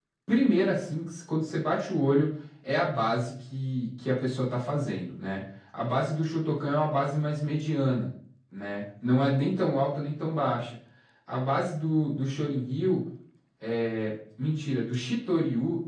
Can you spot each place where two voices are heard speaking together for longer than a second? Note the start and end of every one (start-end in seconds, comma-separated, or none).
none